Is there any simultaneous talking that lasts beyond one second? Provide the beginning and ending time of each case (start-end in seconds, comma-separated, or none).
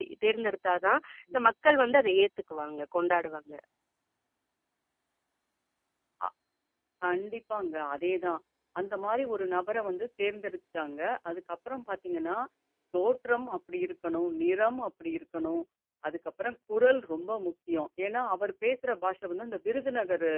none